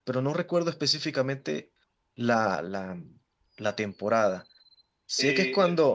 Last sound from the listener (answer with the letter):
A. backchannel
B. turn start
A